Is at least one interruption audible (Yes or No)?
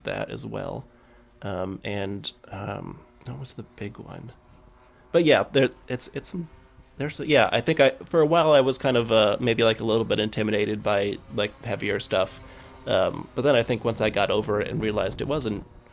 No